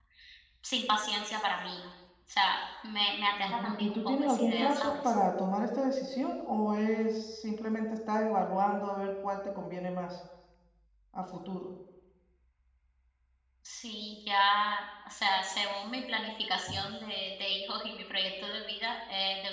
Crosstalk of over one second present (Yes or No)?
Yes